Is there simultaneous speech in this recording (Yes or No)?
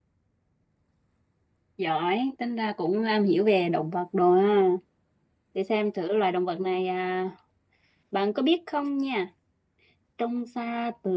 No